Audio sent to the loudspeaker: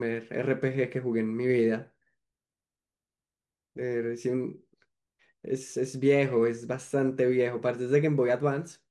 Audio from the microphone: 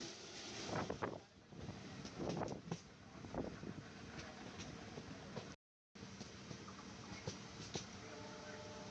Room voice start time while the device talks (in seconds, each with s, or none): none